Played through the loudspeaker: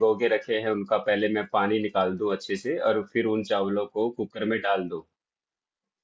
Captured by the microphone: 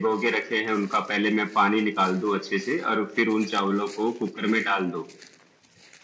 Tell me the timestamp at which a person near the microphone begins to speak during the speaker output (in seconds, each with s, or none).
none